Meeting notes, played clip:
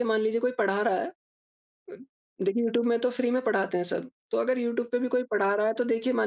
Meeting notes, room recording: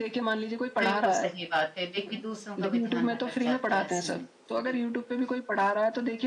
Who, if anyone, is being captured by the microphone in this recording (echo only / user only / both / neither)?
both